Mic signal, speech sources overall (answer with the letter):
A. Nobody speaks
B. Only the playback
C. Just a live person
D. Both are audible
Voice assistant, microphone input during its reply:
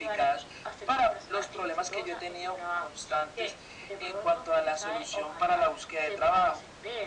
B